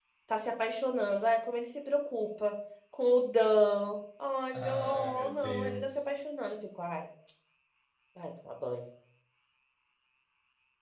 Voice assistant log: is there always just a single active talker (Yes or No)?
No